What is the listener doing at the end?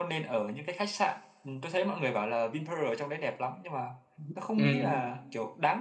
listening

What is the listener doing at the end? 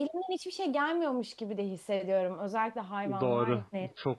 taking over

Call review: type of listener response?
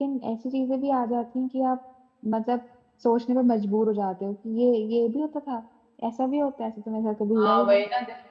taking over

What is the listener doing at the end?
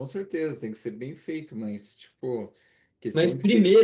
taking over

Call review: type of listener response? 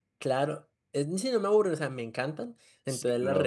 listening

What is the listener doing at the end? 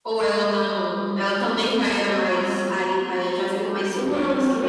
taking over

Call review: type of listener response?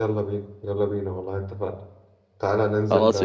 listening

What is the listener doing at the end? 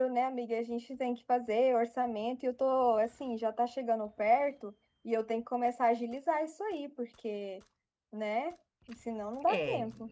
taking over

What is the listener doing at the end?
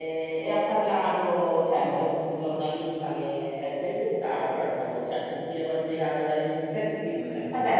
taking over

